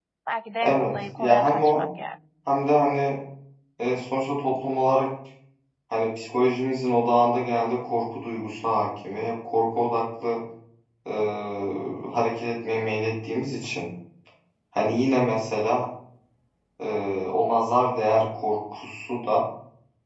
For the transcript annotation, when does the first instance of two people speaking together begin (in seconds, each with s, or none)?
0.6 s